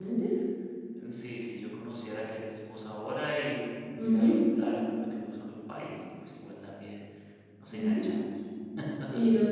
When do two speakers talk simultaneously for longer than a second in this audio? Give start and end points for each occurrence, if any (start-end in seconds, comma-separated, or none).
none